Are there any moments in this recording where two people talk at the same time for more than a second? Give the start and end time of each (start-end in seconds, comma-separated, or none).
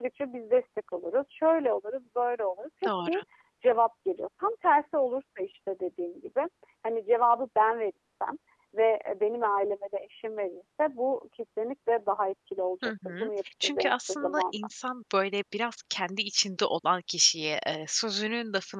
12.8-14.6